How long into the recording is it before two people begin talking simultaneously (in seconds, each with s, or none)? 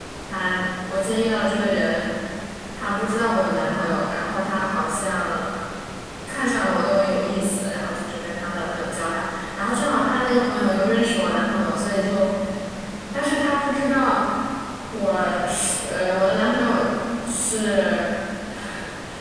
none